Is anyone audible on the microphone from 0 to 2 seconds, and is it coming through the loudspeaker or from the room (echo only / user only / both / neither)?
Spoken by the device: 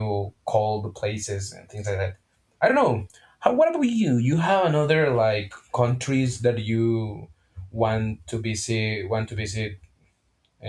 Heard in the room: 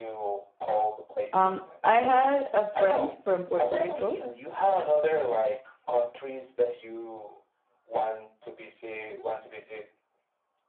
both